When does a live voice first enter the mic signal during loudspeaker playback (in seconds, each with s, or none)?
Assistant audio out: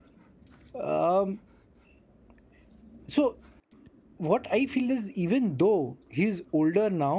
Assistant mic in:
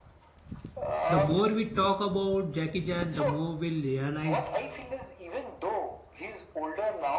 1.1 s